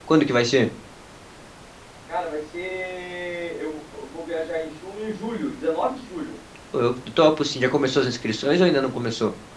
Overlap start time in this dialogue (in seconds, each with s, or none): none